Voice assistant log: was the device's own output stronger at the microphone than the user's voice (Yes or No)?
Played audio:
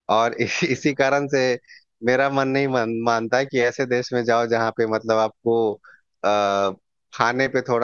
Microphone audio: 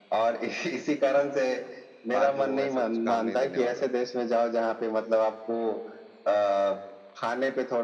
Yes